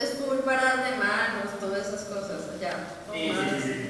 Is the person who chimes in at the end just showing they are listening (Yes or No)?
No